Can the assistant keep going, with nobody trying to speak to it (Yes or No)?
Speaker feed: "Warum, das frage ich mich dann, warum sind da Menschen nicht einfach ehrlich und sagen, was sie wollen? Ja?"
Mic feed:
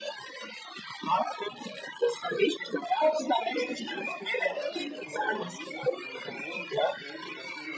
No